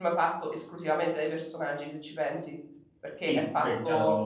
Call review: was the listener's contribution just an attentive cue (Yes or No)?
No